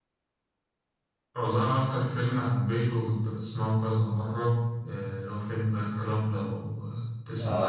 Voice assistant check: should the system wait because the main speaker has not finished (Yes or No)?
No